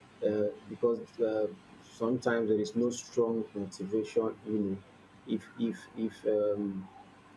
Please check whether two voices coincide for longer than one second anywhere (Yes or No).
No